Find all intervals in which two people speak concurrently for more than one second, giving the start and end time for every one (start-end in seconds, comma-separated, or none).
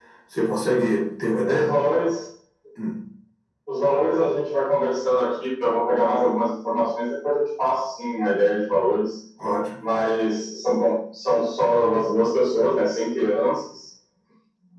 none